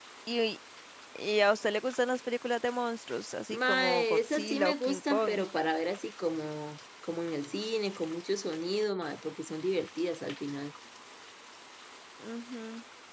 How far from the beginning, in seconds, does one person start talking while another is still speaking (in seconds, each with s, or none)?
3.5 s